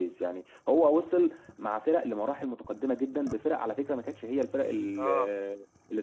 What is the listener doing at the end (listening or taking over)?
listening